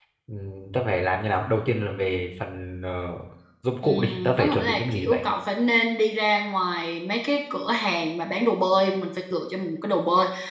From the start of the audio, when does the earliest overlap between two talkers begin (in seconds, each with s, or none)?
3.8 s